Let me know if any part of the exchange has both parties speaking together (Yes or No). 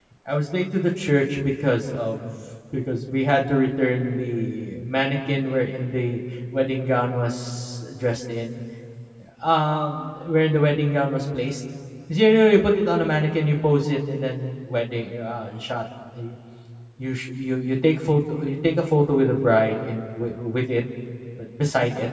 No